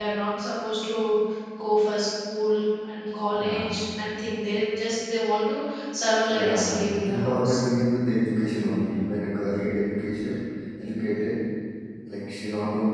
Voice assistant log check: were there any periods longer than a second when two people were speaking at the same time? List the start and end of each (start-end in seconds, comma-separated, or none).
6.3-7.6